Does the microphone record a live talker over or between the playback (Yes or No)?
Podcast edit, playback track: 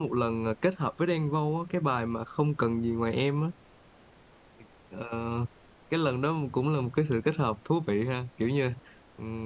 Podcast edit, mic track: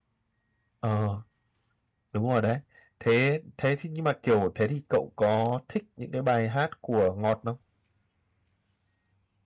Yes